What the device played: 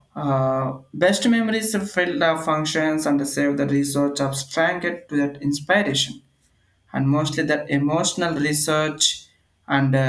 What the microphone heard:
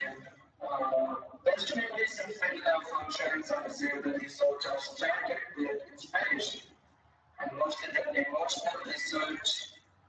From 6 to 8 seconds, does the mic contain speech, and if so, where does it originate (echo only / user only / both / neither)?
echo only